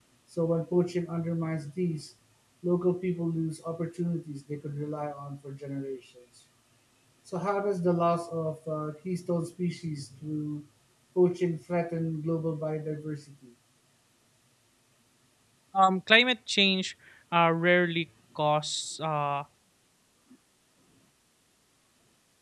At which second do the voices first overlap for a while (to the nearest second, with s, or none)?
none